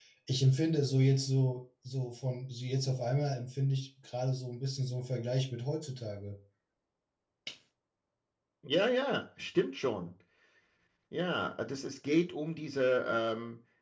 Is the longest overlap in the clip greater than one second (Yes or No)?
No